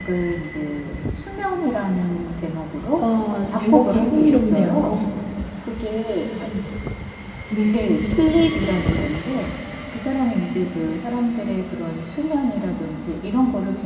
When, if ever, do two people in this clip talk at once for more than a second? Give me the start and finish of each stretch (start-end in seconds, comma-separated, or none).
3.7-4.9